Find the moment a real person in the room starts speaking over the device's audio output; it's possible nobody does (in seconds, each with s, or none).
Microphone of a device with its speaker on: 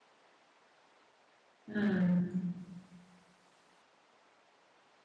1.7 s